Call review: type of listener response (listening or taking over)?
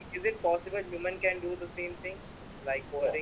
listening